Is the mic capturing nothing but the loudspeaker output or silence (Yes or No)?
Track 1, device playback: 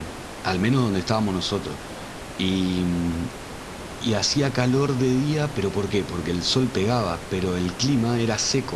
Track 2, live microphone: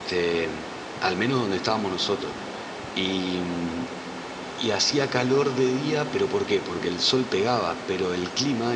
Yes